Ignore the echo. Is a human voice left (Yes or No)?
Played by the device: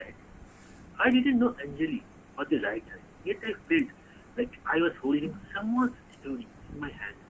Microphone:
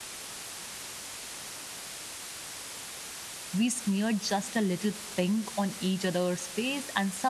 Yes